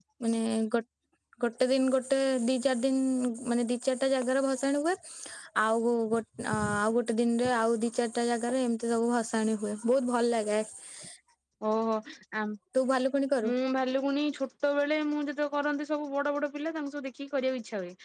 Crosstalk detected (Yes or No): No